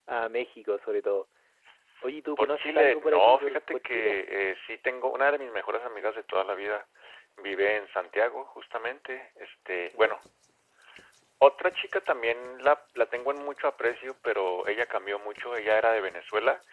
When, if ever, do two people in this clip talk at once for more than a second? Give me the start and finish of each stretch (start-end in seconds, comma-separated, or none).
2.4-4.2